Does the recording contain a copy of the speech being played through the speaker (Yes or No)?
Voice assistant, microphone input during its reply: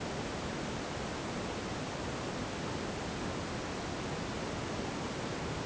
No